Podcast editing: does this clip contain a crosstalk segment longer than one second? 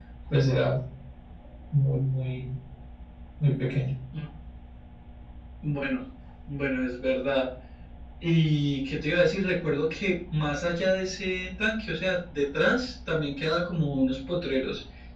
No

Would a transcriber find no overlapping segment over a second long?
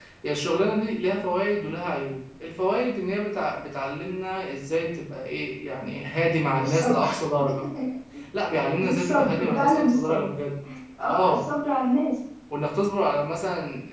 No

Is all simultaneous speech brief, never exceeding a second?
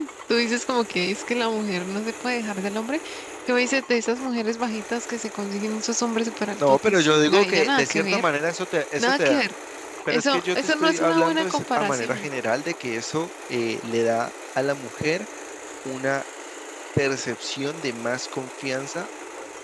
No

